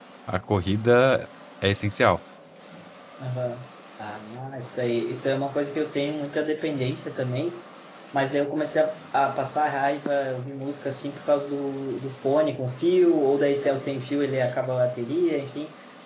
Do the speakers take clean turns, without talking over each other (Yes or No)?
Yes